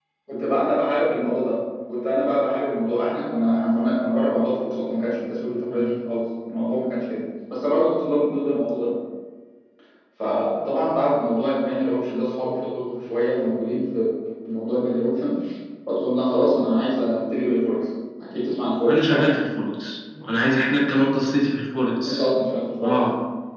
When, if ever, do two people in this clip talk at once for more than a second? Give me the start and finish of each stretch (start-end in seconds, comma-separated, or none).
none